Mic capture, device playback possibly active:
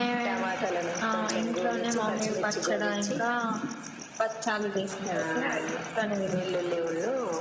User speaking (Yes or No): Yes